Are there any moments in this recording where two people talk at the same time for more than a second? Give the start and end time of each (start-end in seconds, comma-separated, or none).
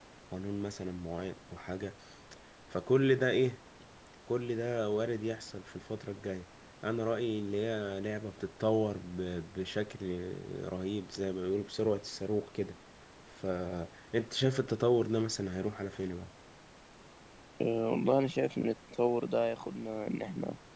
none